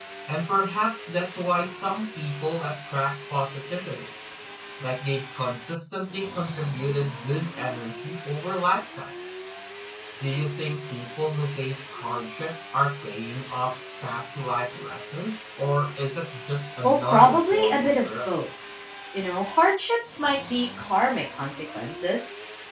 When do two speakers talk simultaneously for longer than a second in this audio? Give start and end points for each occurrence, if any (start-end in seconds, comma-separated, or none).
16.8-18.4